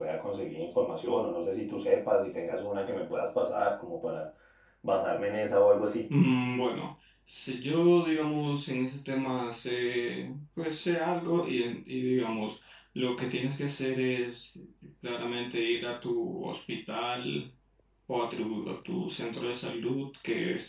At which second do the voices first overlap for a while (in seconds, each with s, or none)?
none